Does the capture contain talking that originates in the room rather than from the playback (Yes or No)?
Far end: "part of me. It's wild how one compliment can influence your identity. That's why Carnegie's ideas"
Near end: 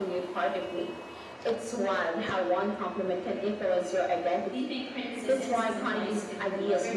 Yes